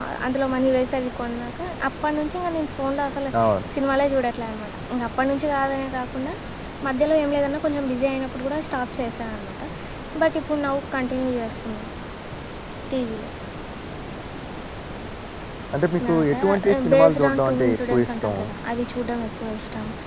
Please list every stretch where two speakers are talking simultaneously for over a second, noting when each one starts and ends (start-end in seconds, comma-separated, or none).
16.1-18.4